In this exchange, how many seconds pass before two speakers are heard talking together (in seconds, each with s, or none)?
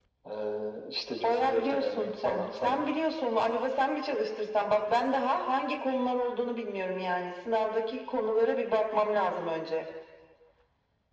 1.2 s